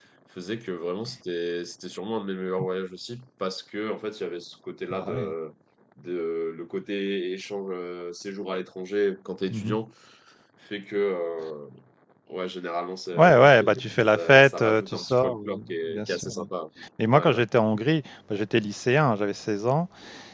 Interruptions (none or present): present